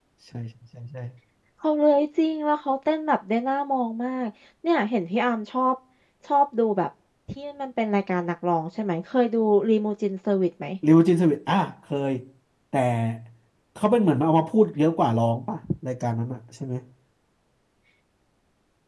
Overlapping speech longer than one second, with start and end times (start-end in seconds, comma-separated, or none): none